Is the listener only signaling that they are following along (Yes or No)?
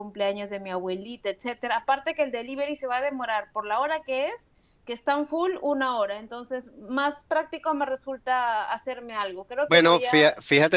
No